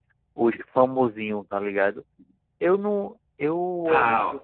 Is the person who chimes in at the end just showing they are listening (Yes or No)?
No